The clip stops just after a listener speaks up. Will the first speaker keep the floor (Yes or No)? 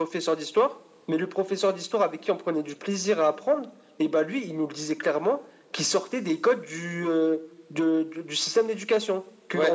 Yes